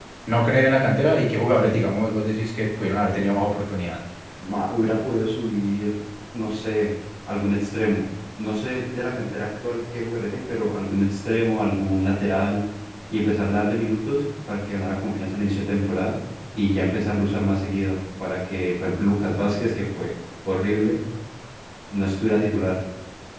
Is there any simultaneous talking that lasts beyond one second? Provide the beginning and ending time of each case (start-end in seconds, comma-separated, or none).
none